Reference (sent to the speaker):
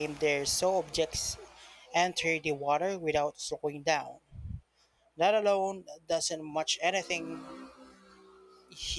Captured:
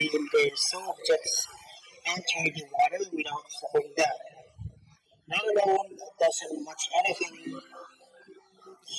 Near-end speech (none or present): none